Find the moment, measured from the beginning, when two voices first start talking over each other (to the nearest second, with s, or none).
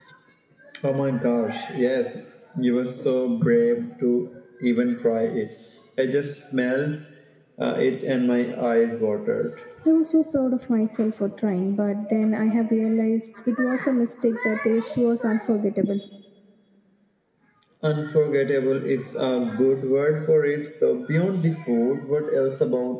none